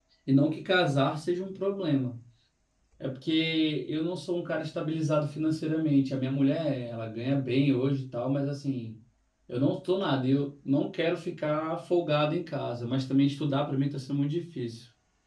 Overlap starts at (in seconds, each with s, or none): none